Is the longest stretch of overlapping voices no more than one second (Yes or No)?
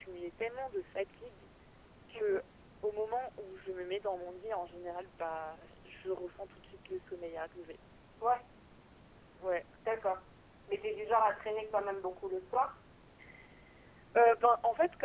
Yes